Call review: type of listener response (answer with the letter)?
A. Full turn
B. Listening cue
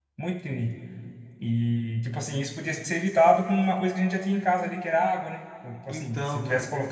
B